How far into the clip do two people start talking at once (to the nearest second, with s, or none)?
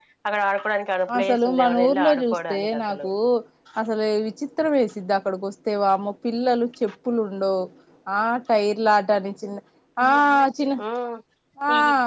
1 s